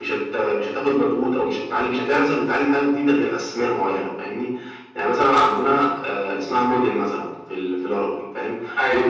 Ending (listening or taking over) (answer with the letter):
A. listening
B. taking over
A